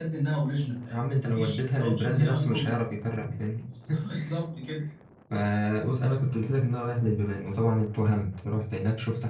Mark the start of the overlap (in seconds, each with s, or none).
1.2 s